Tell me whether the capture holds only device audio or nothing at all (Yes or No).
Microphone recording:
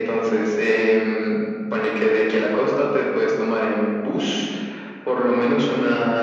Yes